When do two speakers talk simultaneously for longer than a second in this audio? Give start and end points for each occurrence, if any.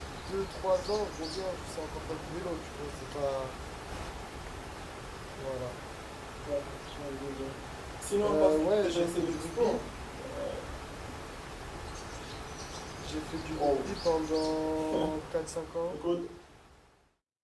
8.2-9.8

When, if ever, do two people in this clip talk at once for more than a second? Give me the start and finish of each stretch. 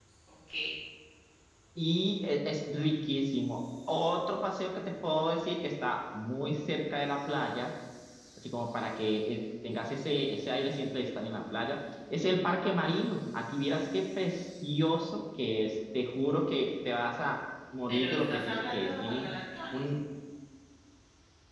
17.9-19.3

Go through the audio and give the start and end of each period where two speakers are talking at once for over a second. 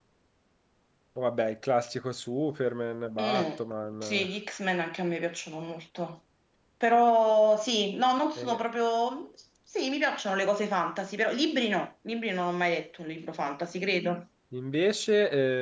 none

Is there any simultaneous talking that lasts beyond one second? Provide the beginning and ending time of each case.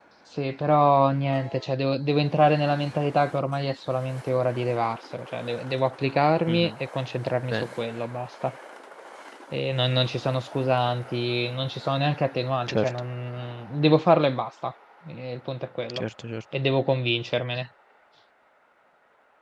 none

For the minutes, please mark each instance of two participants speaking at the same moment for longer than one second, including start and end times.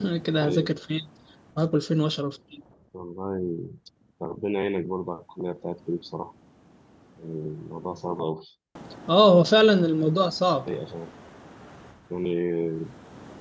none

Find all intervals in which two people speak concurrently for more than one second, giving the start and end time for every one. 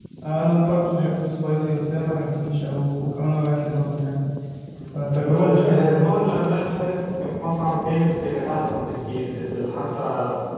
4.9-6.2

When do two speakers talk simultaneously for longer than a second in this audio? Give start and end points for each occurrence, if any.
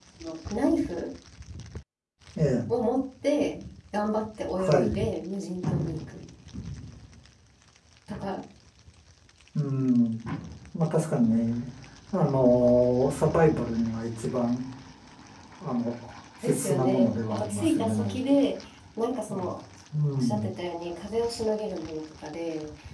16.4-18.2

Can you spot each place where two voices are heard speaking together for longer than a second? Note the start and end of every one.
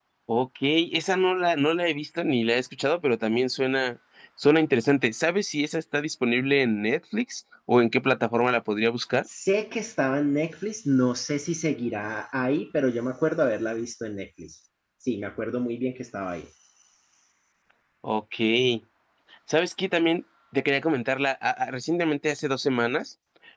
none

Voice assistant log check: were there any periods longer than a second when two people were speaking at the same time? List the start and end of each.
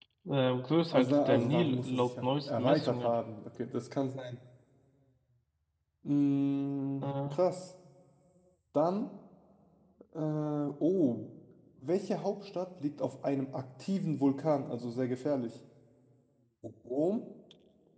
0.9-3.1

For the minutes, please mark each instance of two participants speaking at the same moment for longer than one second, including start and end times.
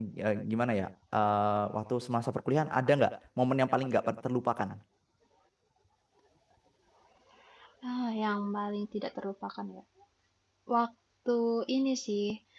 none

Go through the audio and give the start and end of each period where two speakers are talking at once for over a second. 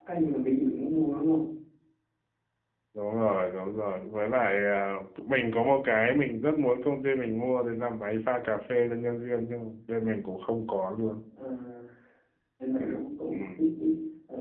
none

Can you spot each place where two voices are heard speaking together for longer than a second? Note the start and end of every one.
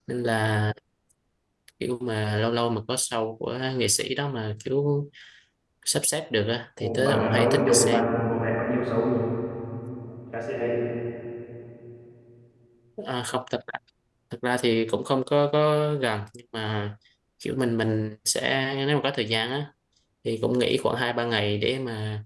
6.8-8.1

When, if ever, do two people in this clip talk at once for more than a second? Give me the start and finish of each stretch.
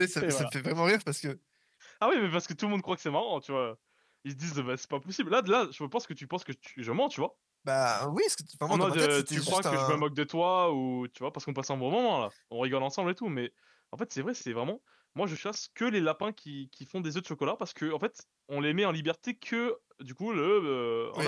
8.7-10.0

